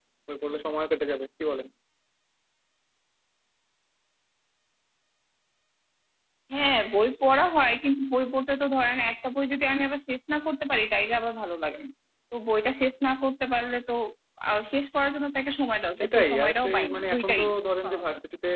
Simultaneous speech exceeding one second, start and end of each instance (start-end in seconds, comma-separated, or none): 16.0-17.4